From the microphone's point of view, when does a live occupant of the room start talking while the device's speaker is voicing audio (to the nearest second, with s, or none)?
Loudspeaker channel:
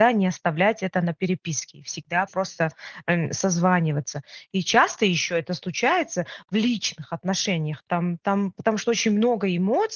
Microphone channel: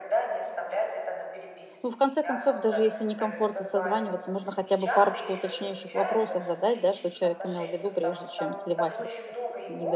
2 s